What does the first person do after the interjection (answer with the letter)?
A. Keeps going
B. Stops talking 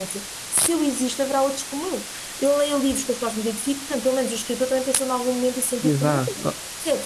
B